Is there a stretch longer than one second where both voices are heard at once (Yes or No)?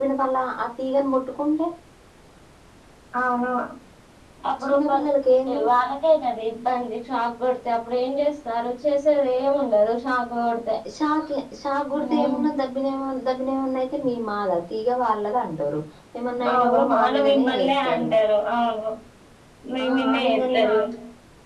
Yes